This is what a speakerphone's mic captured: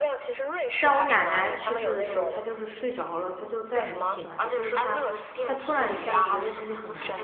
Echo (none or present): present